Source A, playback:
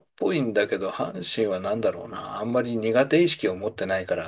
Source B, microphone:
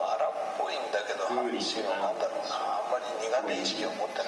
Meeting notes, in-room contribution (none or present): present